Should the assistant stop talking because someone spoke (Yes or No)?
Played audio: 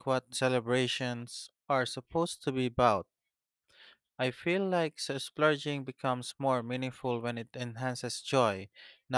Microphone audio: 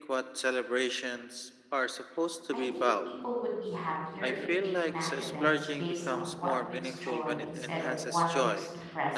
Yes